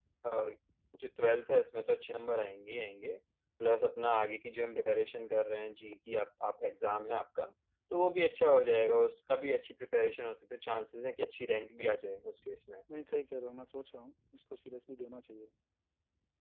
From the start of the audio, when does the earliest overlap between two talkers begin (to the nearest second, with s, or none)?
none